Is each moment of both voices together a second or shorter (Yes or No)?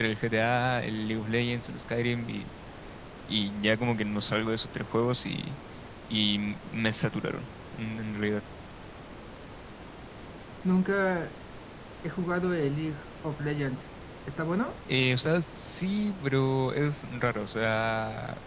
Yes